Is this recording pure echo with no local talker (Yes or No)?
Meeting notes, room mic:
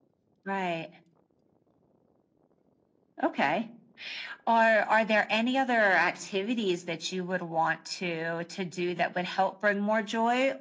Yes